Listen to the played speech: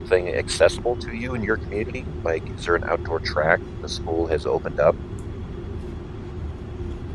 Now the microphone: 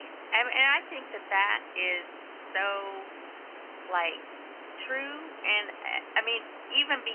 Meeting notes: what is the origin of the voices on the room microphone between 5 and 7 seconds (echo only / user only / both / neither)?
user only